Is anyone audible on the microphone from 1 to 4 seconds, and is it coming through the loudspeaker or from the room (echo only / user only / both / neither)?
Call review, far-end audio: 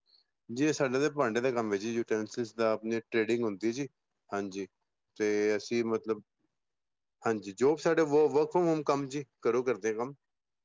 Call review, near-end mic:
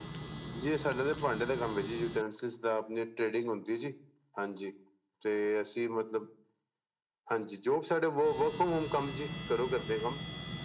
echo only